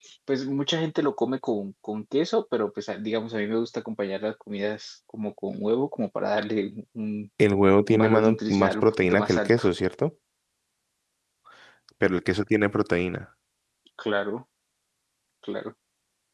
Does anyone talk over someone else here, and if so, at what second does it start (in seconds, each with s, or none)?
7.9 s